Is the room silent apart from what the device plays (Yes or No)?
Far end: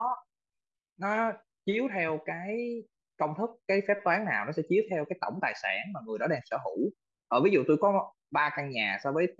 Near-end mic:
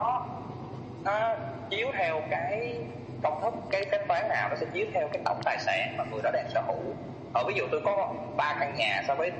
Yes